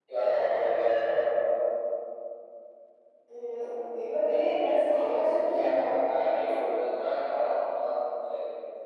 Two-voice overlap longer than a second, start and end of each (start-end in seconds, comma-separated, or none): none